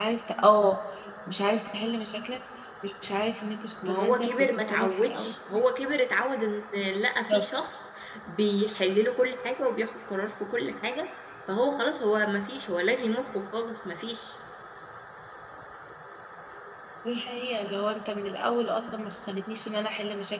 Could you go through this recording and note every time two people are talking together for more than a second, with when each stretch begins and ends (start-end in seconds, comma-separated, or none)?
3.8-5.3